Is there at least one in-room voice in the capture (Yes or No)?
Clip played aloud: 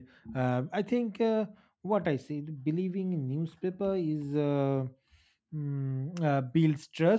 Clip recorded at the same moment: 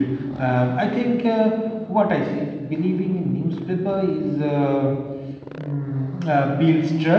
No